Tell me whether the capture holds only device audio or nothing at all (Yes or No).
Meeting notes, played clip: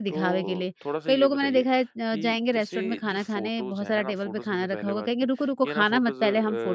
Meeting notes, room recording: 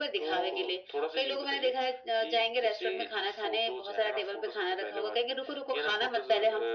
Yes